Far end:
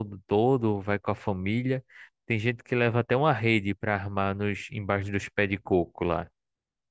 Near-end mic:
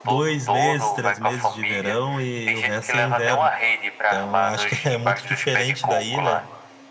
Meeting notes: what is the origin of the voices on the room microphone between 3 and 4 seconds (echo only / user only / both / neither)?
both